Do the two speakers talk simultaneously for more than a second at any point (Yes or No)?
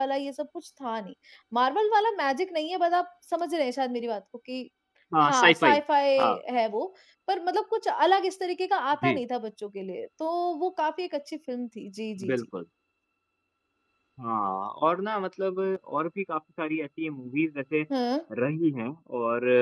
No